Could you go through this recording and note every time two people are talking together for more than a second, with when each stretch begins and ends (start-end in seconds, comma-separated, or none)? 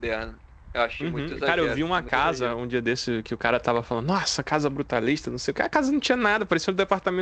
1.0-2.5